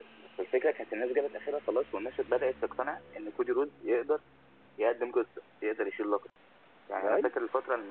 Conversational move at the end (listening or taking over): listening